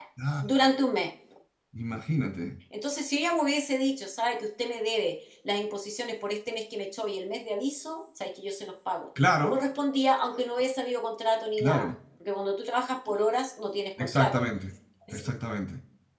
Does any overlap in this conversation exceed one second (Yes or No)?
No